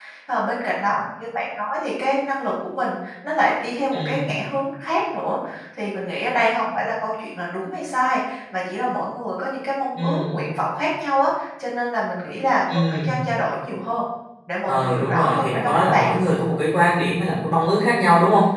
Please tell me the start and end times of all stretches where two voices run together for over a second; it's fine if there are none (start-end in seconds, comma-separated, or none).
14.7-16.1